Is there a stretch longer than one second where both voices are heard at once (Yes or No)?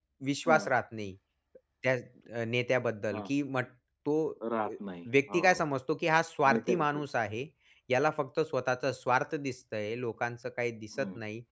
No